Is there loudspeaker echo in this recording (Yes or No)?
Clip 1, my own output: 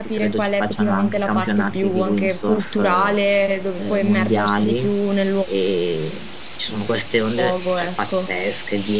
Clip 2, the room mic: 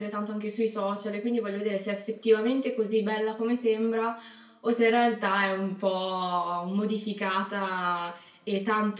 No